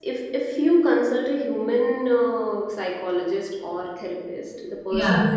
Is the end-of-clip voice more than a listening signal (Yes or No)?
No